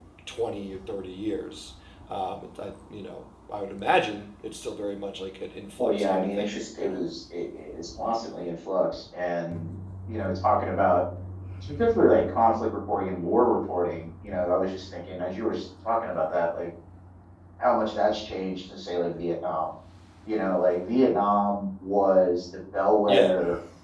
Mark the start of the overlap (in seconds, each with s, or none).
5.8 s